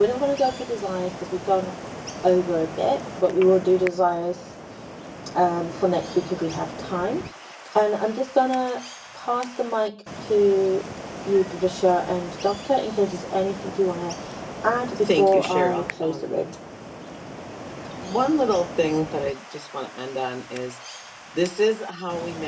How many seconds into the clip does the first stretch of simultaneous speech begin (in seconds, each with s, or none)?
15.1 s